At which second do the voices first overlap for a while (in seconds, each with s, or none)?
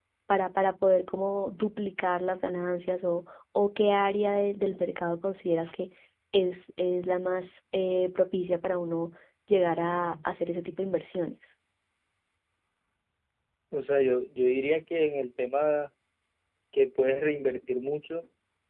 none